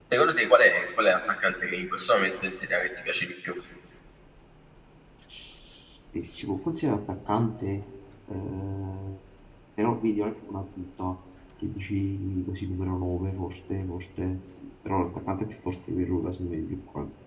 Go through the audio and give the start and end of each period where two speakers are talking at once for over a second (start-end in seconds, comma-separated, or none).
none